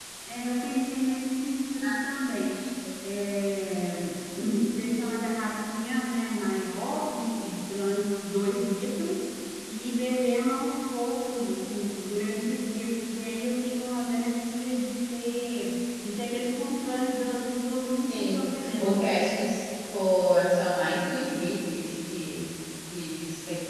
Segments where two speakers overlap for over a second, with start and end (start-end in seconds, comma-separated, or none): 18.1-19.4